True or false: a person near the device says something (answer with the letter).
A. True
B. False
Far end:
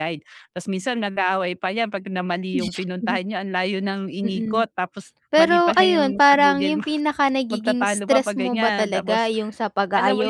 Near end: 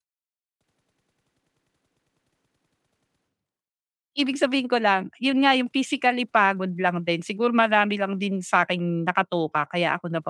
A